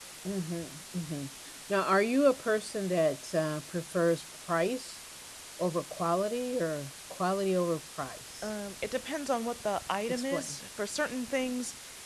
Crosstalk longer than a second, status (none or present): none